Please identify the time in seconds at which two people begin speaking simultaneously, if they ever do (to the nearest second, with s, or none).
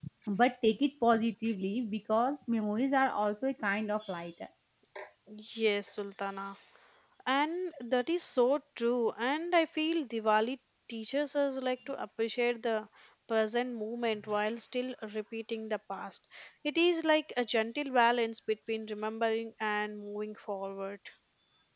none